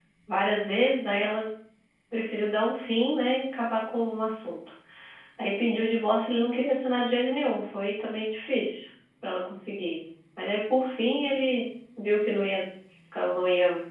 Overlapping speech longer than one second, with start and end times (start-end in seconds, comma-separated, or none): none